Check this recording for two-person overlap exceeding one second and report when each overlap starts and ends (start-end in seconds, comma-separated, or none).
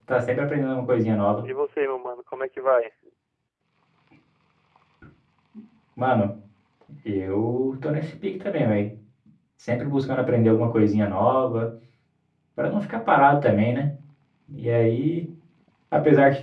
none